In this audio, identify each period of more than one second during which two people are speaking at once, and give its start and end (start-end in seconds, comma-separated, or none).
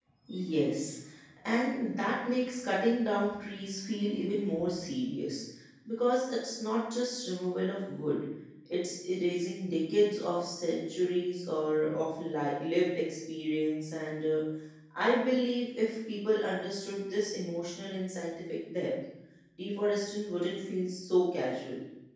none